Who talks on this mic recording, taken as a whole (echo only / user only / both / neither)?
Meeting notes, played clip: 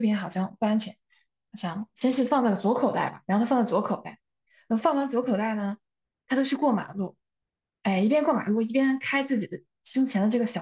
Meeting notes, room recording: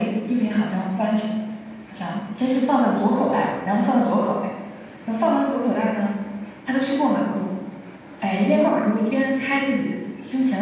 echo only